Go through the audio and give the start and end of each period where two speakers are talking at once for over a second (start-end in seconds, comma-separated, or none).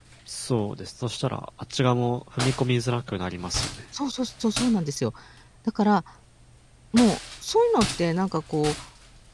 none